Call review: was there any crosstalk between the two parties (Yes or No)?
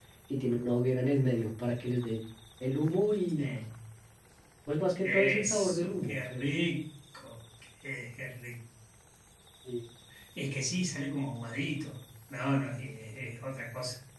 Yes